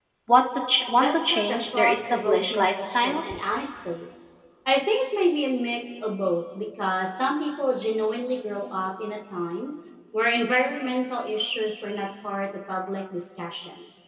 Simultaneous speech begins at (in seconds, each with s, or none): 0.9 s